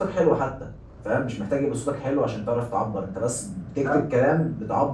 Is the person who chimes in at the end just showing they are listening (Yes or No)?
Yes